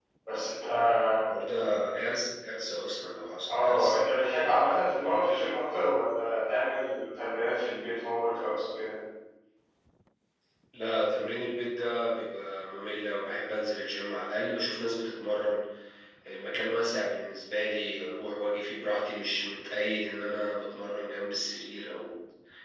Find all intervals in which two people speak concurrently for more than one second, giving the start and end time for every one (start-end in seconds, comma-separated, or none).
none